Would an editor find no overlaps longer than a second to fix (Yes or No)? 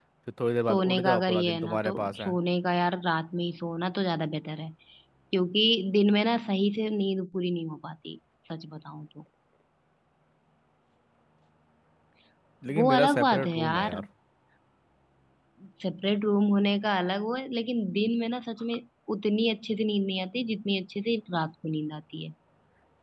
No